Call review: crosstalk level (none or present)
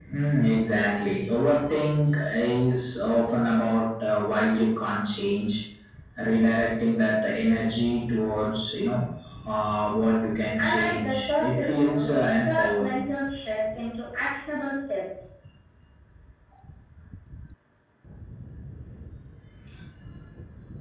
present